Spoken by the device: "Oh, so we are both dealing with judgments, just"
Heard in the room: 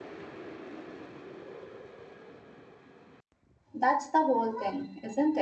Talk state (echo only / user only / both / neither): user only